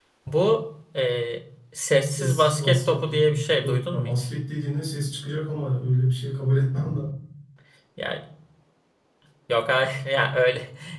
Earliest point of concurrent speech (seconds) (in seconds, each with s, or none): 2.0 s